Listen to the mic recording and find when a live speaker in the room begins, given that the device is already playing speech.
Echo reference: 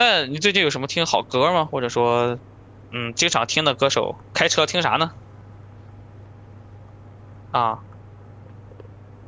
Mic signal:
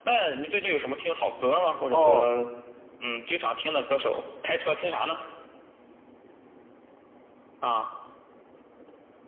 2 s

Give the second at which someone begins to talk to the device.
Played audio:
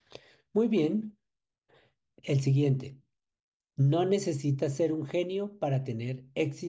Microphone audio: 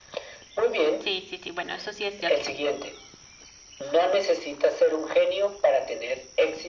1 s

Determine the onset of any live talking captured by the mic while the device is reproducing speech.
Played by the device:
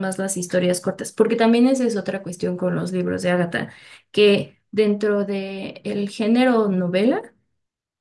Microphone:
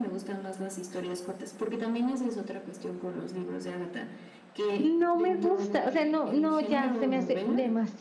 5 s

